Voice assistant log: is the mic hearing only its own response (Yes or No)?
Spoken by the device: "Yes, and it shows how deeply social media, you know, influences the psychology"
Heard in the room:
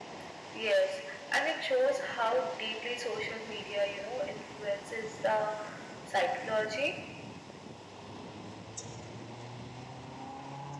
Yes